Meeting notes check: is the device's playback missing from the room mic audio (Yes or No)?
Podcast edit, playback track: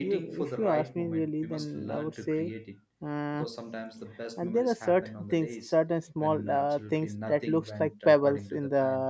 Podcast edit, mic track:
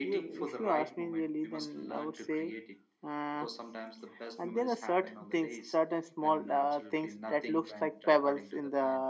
No